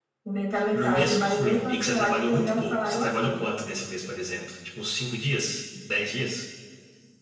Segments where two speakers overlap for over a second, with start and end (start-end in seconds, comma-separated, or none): 0.7-3.4